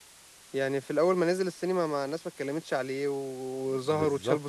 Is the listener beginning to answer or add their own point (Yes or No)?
Yes